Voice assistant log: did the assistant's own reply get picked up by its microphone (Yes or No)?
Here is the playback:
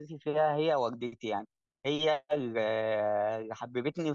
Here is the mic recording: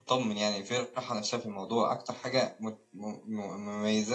No